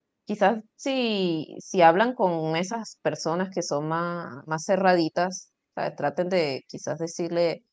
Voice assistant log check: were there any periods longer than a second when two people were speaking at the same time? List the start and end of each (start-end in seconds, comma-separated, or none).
none